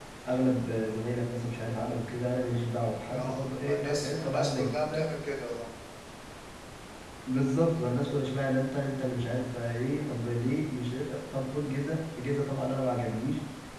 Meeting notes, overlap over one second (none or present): present